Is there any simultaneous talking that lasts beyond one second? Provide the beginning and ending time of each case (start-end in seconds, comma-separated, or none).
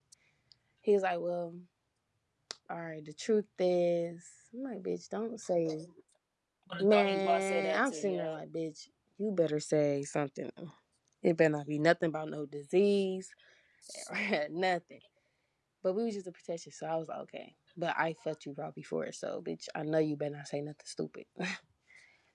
6.8-8.4